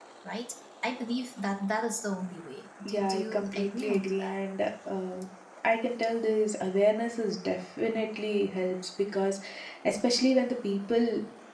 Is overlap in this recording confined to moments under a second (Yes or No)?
No